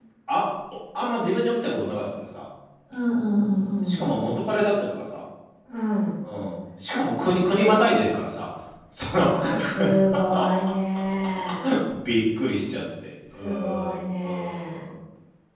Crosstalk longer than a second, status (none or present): present